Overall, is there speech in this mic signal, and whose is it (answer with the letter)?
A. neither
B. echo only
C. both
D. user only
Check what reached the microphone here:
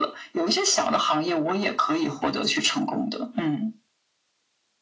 B